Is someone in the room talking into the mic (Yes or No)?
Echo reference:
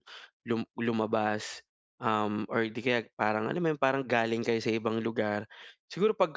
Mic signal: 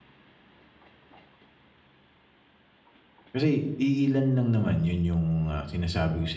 Yes